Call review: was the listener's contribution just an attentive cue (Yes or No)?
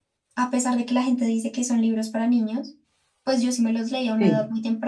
Yes